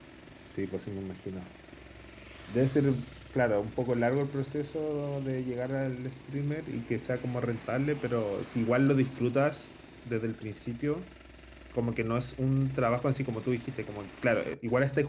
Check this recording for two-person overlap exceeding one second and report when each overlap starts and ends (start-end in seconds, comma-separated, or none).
none